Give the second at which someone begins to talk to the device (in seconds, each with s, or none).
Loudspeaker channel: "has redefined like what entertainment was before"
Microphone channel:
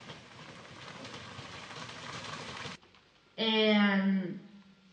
3.4 s